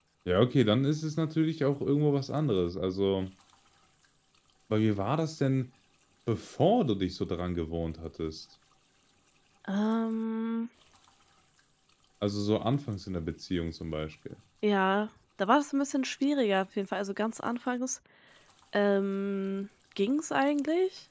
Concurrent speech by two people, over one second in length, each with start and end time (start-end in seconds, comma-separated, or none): none